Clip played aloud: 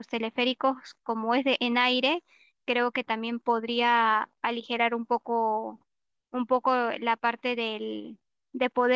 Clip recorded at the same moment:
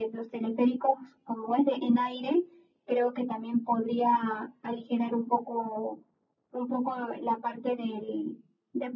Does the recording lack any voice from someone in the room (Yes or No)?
Yes